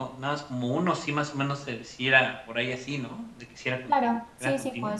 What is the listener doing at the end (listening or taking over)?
taking over